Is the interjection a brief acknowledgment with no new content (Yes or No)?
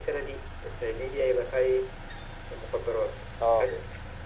Yes